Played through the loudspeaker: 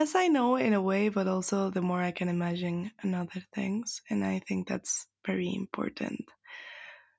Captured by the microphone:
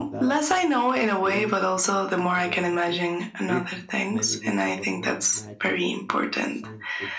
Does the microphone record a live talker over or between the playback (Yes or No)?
Yes